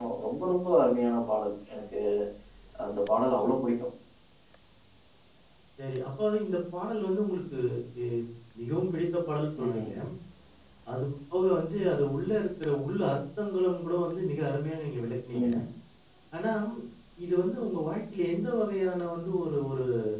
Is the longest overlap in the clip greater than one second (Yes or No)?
No